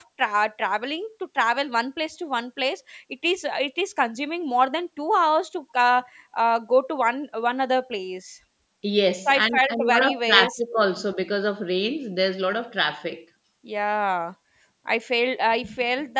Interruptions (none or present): present